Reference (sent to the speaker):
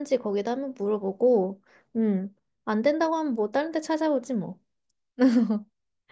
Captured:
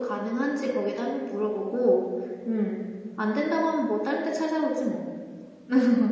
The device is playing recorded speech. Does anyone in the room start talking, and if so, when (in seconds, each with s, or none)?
none